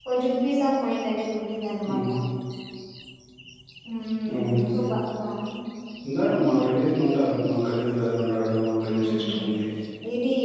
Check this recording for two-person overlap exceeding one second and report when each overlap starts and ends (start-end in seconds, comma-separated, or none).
none